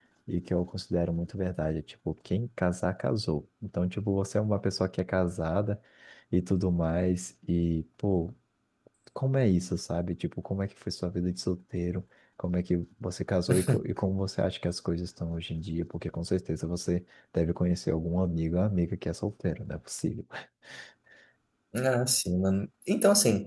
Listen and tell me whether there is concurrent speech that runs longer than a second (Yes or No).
No